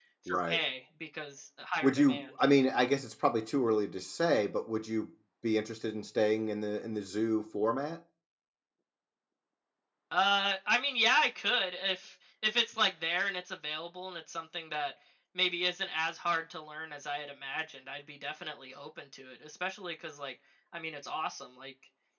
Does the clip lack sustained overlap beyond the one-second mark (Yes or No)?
Yes